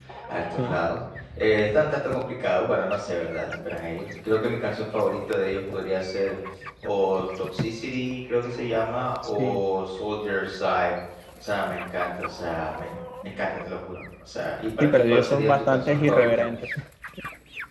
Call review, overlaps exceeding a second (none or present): present